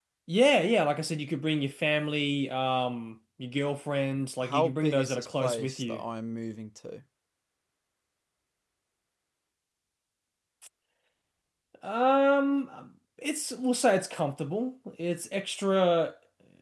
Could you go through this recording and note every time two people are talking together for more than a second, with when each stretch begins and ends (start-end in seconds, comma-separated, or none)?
4.4-6.0